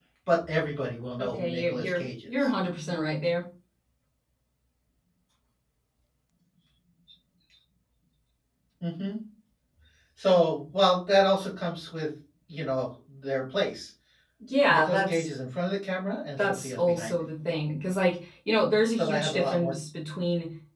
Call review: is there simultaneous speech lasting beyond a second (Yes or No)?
Yes